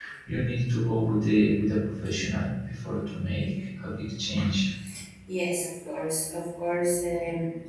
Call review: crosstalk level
none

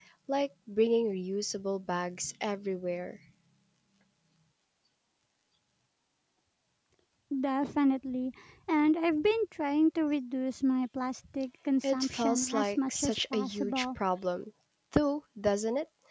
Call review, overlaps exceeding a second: present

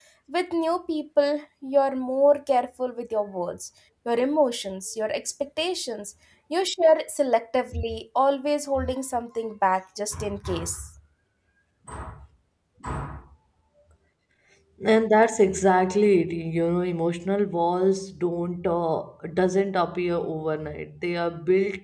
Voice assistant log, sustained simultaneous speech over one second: none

